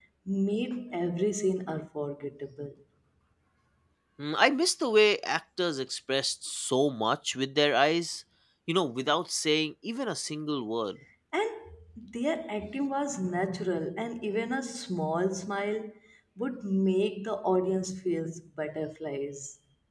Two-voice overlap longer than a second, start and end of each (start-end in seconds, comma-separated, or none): none